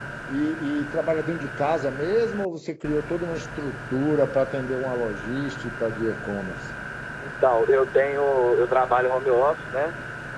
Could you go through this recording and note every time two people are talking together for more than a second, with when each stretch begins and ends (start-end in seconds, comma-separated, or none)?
none